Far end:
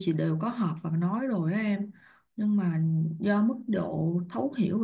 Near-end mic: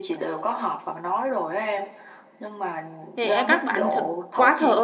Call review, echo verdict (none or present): present